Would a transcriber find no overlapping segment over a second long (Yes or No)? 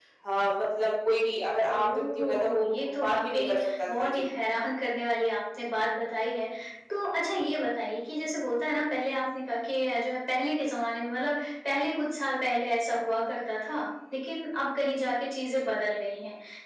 No